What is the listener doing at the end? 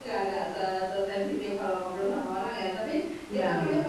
listening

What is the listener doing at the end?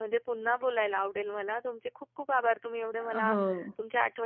listening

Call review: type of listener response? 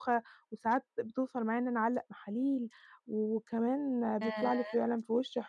listening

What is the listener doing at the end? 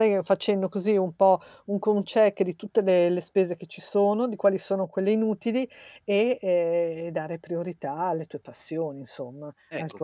taking over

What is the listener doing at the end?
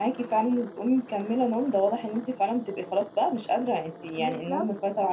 listening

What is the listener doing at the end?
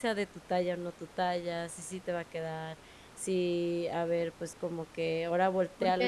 taking over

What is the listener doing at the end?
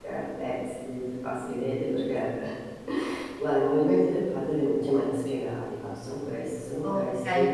taking over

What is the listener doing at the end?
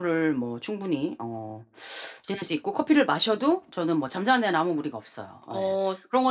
listening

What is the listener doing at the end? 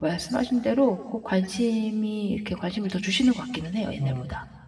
taking over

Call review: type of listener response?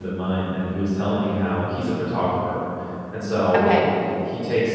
listening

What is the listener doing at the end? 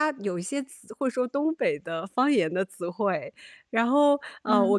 listening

